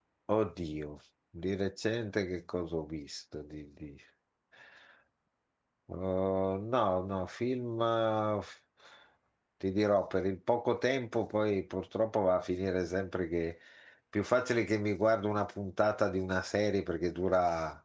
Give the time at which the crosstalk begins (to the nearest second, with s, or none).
none